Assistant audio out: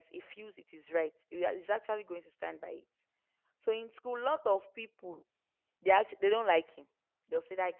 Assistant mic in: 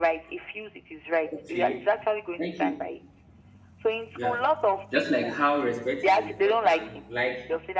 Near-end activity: present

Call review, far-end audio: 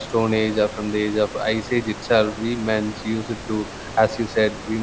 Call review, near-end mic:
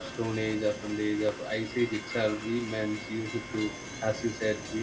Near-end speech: none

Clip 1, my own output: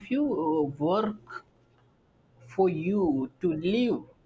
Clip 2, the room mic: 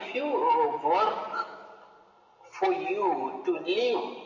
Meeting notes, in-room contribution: none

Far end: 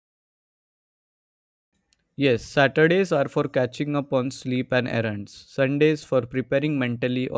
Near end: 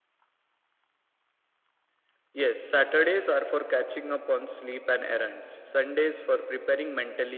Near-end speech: none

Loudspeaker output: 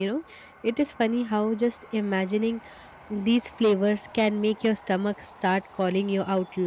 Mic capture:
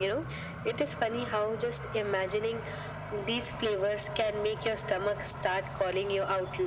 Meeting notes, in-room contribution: none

